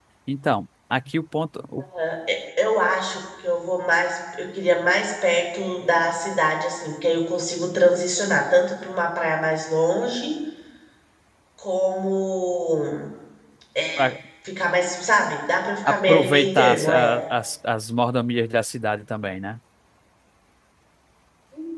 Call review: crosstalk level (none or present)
present